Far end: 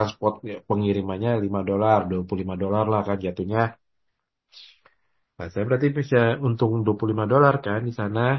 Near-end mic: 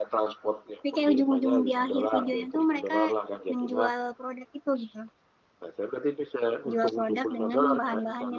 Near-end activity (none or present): present